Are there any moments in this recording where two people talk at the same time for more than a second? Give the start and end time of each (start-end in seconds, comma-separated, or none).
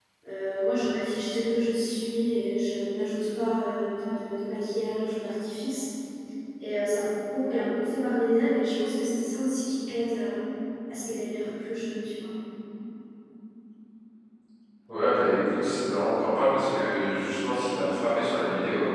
none